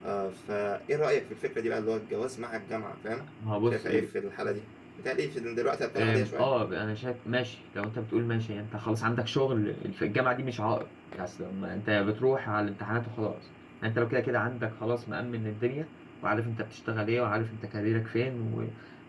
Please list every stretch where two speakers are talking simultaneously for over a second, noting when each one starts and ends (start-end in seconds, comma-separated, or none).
none